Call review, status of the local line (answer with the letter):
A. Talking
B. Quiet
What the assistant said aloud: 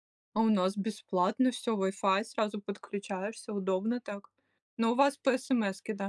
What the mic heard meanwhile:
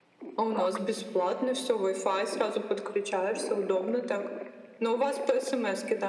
B